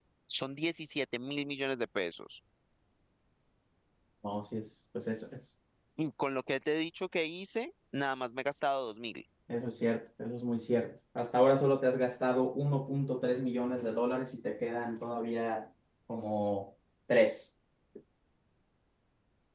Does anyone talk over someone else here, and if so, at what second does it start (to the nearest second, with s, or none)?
none